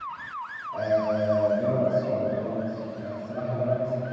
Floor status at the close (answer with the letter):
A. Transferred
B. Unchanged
B